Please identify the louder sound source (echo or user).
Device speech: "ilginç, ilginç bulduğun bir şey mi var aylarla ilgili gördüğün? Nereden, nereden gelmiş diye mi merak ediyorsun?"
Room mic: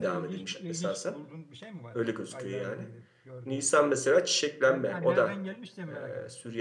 user